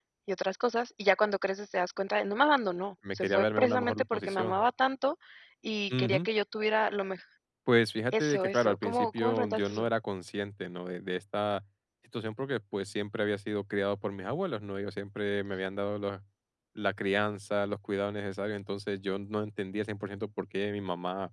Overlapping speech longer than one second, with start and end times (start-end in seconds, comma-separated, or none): 3.1-4.6, 8.1-9.9